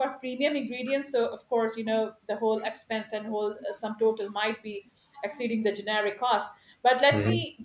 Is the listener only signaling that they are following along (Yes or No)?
Yes